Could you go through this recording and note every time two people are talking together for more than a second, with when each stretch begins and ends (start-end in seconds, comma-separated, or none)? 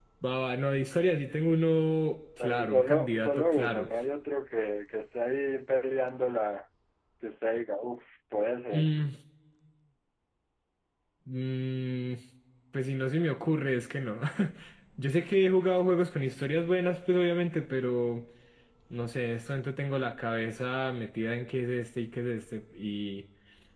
2.4-3.9